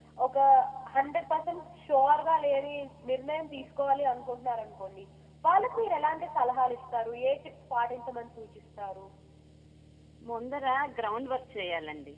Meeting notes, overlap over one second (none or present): none